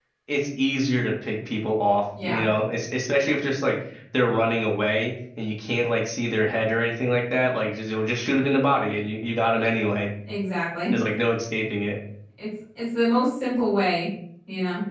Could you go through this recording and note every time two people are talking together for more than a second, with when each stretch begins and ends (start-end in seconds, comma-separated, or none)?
none